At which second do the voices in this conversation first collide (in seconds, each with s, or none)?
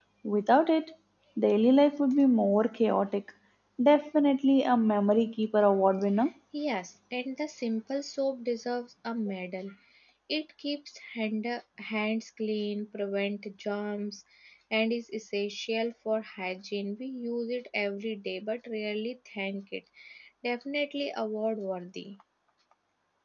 none